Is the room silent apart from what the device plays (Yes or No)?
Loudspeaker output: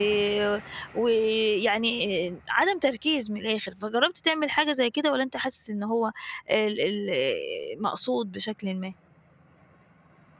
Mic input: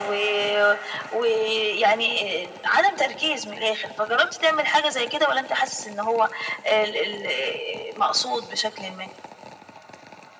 Yes